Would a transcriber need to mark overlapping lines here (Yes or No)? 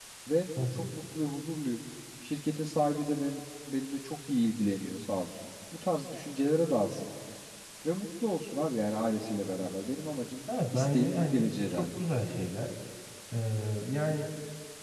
Yes